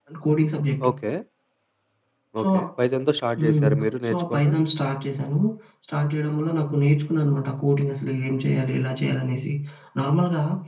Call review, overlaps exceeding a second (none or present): none